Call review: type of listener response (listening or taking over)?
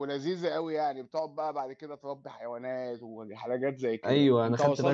taking over